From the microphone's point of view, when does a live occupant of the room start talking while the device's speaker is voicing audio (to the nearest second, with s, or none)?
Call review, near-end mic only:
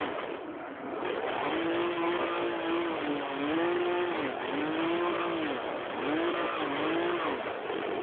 none